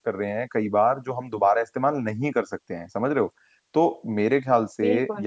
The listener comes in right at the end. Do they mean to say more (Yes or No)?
No